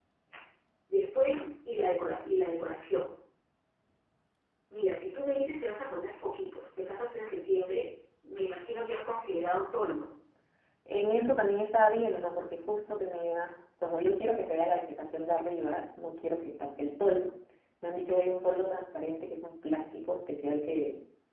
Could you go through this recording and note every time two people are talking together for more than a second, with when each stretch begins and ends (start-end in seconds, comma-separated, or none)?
none